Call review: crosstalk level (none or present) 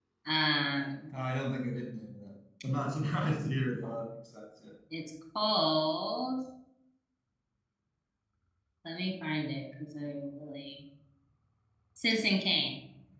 none